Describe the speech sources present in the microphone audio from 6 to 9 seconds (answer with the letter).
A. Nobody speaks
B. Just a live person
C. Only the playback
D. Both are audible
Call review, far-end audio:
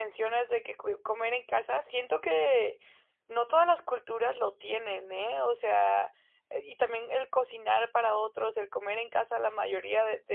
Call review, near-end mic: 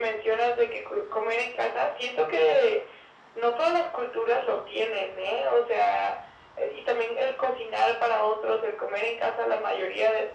C